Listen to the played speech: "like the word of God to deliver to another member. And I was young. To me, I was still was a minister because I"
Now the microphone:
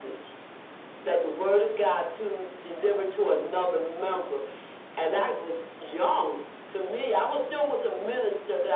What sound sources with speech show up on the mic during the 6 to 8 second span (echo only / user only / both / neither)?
echo only